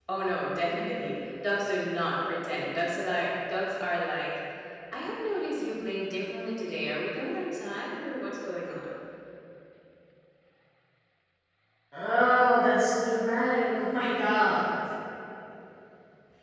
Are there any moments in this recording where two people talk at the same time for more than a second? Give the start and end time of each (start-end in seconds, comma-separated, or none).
none